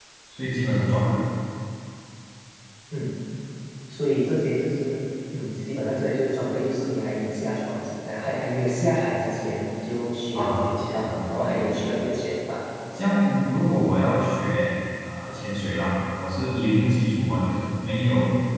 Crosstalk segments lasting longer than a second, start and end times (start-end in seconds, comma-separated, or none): 10.3-11.8